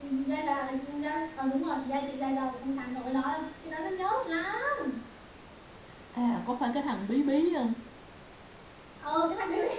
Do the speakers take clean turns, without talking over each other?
Yes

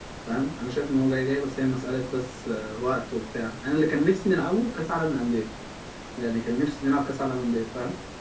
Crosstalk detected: No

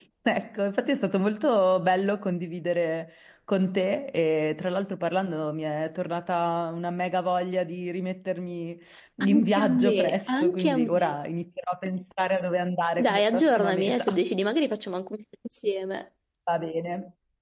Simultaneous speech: Yes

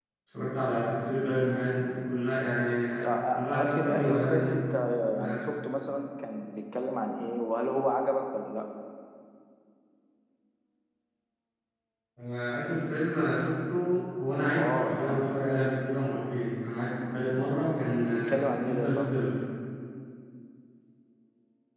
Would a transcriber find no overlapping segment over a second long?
No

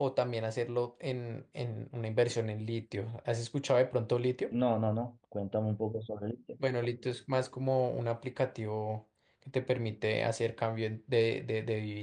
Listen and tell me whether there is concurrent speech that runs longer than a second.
No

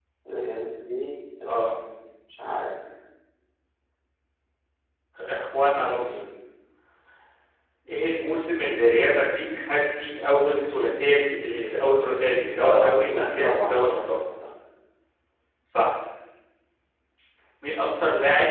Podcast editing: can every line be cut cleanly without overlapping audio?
No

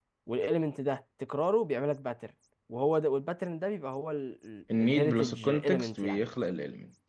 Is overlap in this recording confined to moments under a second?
No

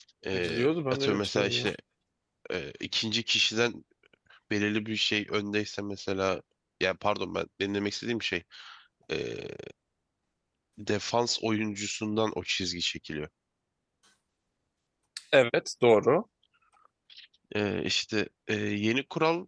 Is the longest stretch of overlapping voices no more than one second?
No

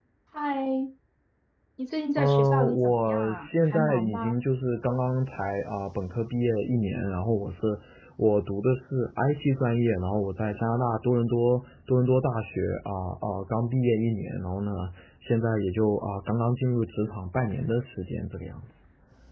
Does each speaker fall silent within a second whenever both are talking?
No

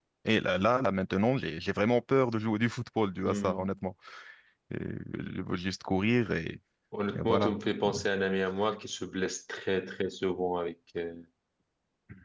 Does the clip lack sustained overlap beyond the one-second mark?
Yes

